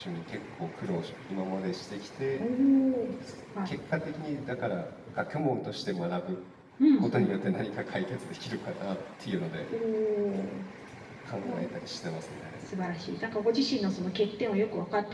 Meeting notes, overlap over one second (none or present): none